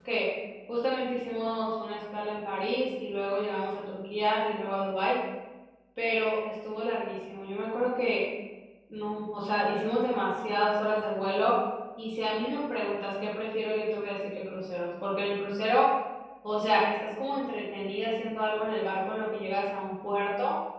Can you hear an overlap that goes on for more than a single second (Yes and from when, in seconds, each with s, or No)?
No